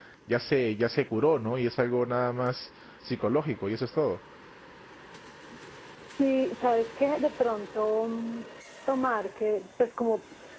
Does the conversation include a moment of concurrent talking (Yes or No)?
No